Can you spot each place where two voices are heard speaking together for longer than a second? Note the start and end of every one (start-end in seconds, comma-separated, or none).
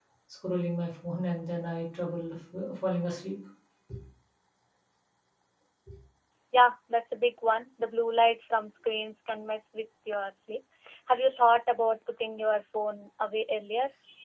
none